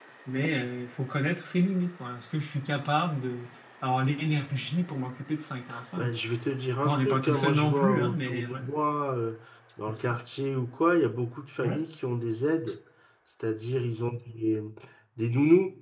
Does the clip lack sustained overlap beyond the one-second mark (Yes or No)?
No